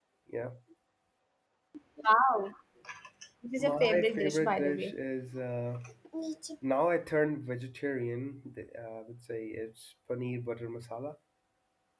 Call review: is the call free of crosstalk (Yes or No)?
No